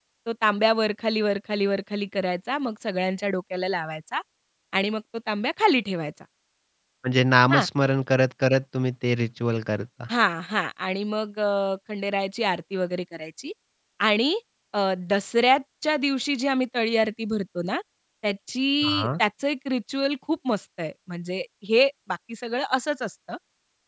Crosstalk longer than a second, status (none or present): none